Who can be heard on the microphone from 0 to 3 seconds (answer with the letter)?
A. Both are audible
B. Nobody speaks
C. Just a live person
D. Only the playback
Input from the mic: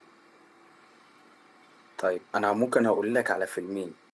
C